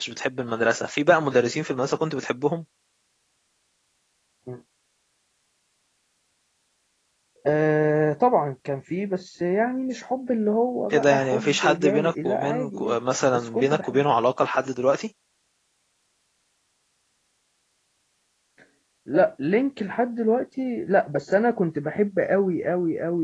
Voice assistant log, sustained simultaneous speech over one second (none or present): present